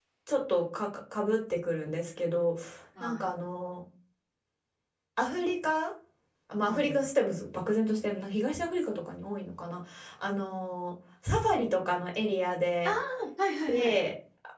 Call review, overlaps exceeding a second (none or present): none